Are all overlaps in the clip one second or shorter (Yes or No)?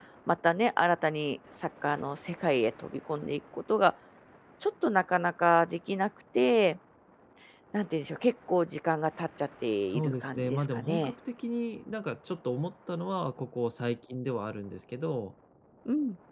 No